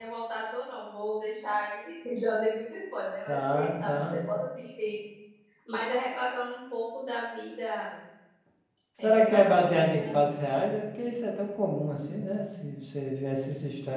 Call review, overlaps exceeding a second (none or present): present